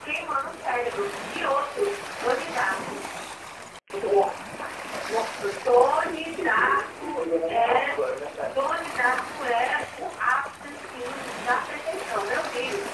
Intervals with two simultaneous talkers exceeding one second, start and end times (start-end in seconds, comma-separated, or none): 5.7-8.0